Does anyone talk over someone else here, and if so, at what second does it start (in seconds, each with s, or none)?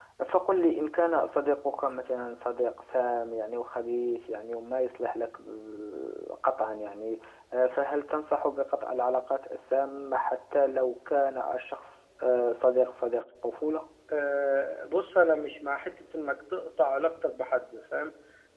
none